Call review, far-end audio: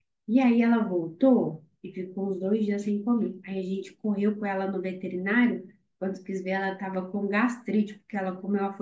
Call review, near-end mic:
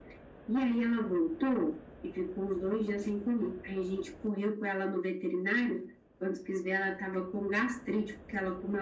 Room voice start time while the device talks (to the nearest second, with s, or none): none